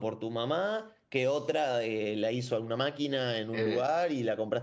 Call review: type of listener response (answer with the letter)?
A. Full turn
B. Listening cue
B